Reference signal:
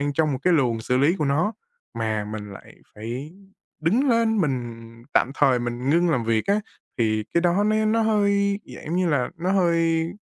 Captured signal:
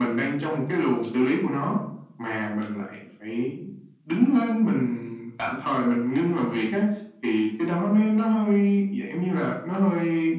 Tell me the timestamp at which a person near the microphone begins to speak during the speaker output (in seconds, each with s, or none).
none